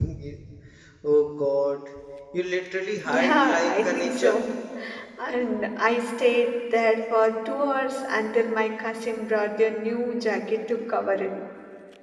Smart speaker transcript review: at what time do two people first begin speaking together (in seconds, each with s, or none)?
3.0 s